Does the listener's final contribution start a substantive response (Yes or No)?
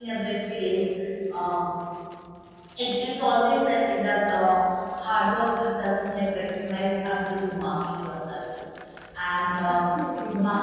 No